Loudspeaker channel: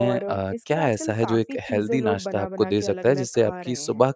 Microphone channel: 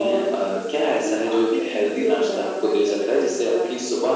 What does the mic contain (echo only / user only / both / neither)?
echo only